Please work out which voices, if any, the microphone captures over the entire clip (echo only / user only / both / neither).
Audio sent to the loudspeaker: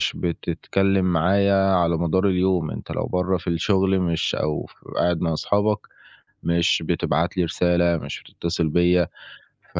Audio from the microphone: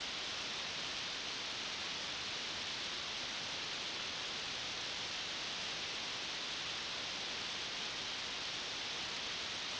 neither